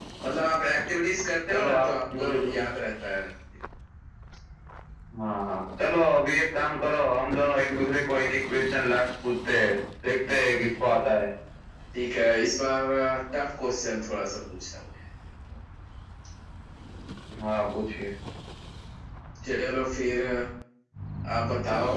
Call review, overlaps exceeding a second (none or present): present